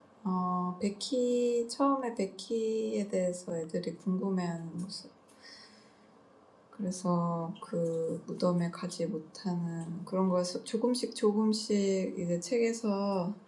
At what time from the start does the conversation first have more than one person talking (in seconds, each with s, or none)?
none